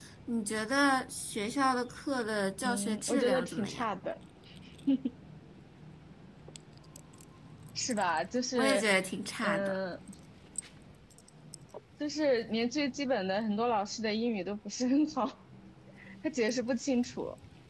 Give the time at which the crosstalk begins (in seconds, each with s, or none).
2.6 s